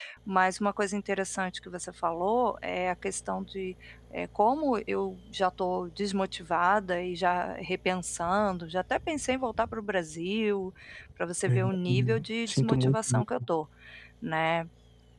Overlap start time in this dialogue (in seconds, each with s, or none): 11.5 s